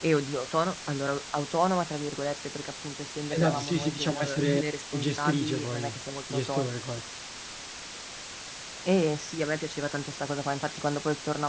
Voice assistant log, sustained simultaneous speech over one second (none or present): present